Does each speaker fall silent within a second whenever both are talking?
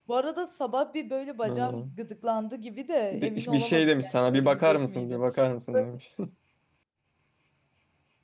No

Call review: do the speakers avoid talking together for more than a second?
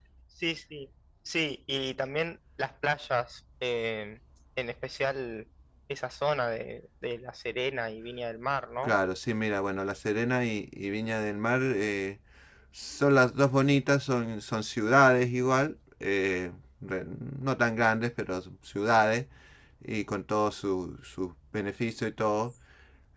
Yes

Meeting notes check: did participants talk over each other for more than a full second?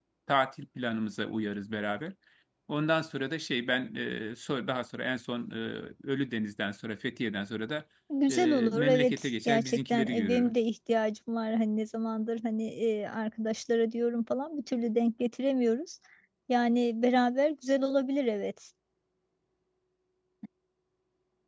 Yes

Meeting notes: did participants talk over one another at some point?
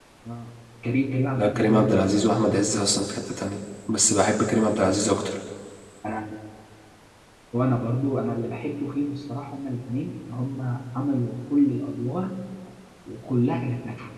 Yes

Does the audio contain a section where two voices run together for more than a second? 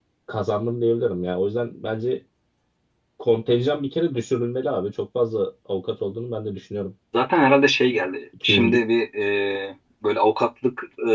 No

